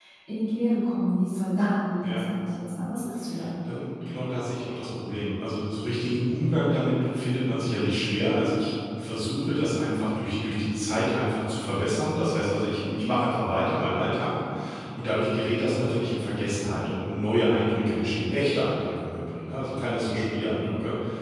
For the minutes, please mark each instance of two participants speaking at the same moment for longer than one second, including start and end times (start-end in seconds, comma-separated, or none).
none